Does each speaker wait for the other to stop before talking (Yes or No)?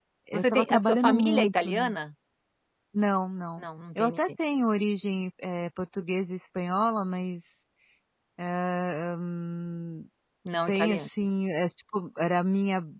No